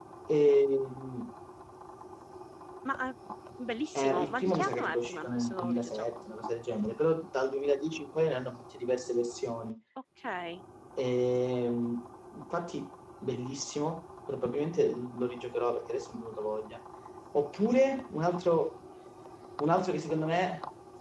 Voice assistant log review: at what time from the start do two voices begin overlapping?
4.0 s

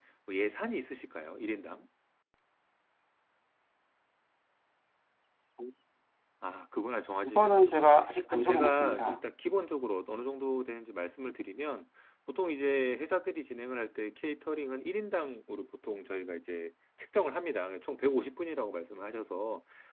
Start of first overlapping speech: 7.2 s

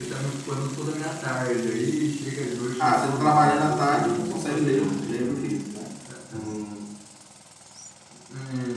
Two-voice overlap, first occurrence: 2.8 s

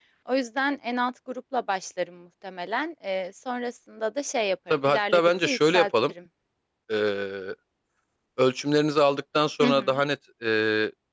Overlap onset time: 4.7 s

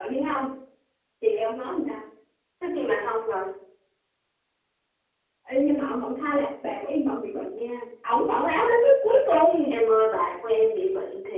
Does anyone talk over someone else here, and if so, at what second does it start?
none

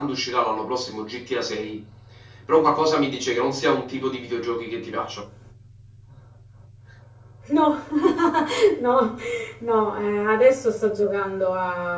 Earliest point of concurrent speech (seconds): none

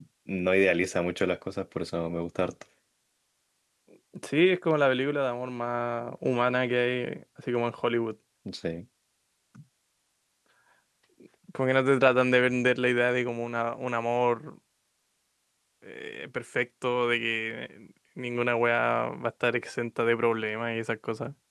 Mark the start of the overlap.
none

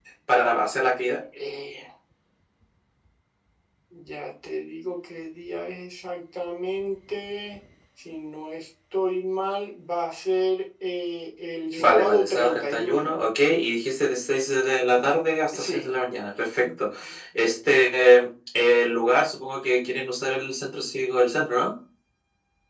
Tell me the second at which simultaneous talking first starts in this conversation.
11.7 s

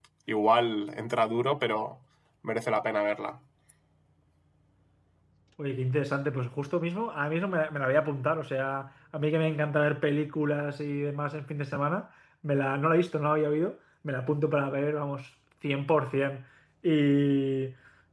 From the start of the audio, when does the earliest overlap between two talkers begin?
none

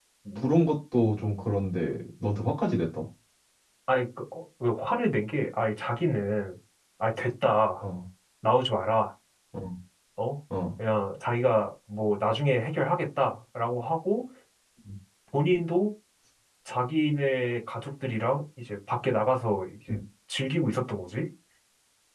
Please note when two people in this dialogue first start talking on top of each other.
none

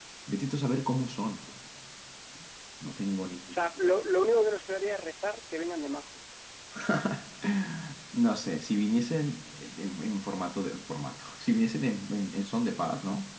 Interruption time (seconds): none

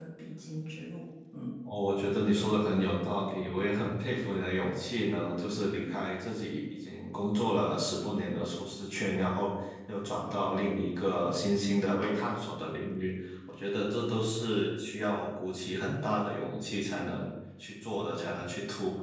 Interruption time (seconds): none

